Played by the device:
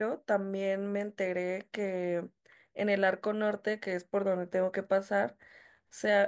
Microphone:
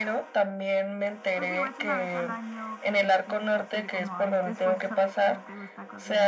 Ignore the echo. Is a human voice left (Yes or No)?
Yes